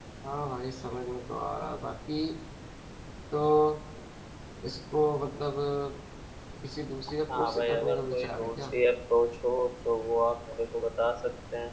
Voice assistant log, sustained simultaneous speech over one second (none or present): present